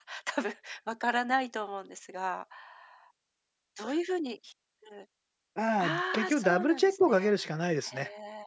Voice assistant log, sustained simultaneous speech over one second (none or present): present